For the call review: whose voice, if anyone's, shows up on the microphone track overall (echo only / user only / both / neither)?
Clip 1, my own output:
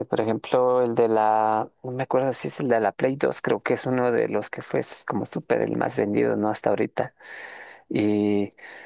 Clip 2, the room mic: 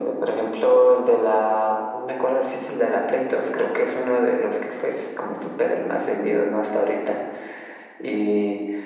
echo only